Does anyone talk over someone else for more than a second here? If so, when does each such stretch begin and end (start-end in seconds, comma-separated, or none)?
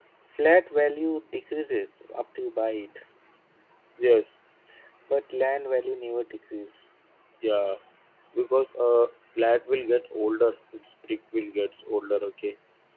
none